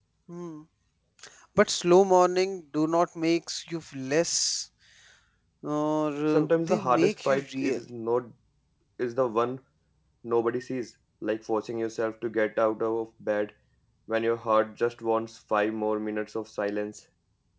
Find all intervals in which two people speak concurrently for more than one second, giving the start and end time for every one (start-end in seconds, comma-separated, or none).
6.3-7.8